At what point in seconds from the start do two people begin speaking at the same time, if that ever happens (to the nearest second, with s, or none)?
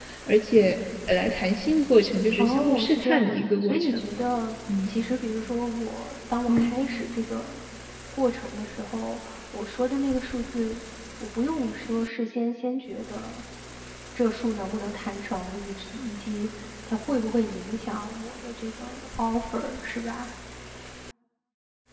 2 s